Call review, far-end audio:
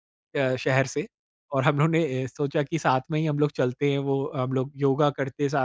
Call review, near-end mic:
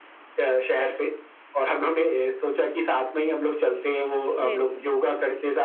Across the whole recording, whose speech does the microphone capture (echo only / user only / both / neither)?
both